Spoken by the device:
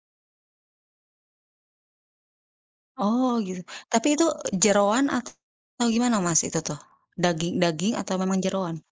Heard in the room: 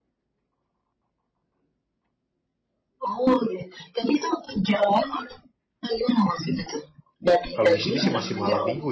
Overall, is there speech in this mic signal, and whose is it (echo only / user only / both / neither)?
both